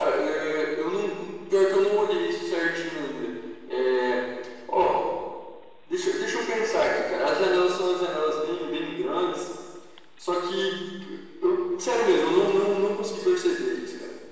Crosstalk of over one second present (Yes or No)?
No